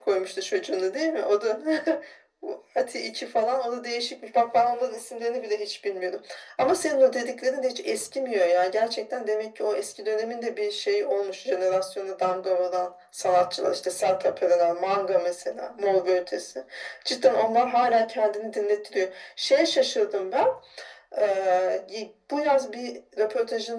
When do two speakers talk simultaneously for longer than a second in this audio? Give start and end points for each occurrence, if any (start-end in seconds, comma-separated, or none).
none